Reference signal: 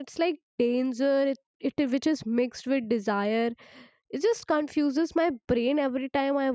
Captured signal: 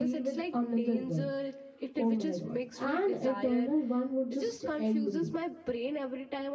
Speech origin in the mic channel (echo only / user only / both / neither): both